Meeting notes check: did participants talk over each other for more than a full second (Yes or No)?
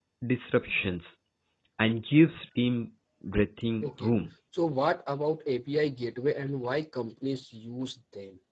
No